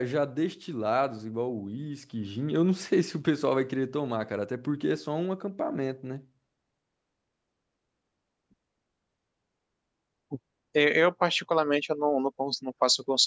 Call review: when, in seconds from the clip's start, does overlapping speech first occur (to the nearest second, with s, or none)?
none